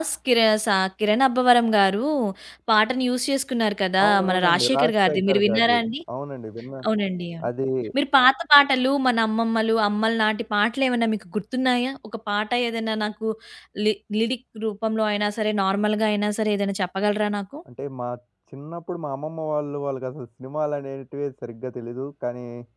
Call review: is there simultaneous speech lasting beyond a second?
Yes, from 4.0 s

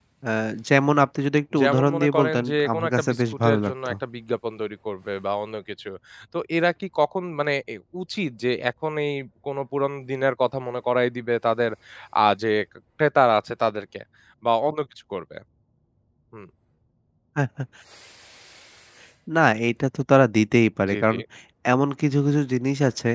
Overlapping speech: Yes, from 1.6 s

